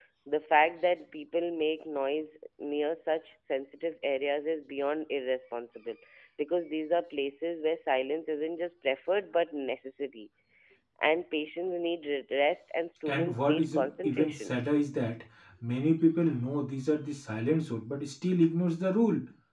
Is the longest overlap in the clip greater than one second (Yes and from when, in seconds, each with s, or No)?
Yes, from 13.1 s